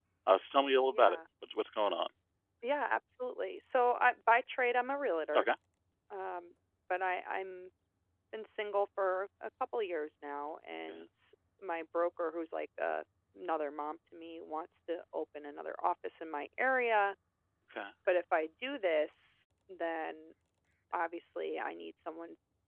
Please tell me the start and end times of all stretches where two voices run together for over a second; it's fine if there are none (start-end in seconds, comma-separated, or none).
none